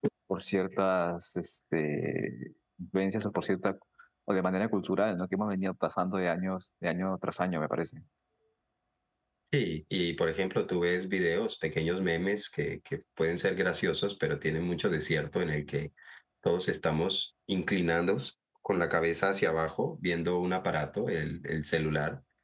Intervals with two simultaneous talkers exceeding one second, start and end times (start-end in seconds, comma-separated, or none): none